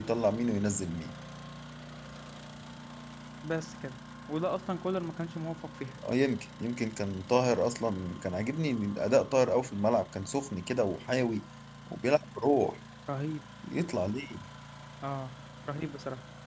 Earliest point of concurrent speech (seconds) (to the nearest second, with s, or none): none